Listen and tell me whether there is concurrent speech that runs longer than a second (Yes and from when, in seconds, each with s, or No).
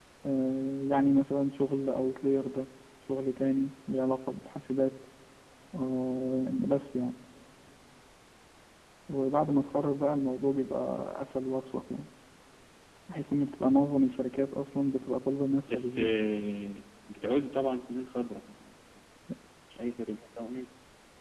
No